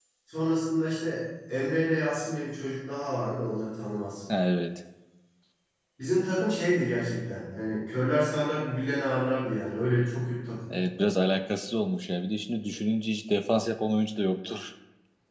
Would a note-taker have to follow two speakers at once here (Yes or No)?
No